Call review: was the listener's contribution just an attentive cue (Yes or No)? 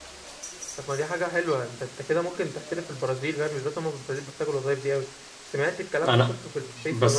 No